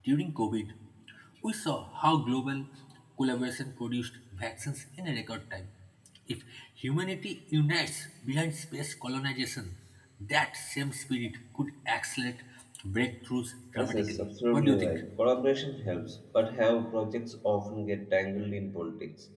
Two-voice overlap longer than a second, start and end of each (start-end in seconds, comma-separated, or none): 13.8-15.0